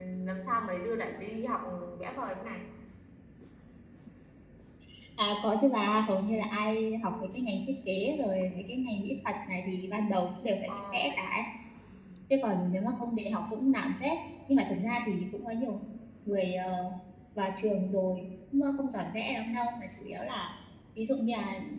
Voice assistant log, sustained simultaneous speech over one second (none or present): none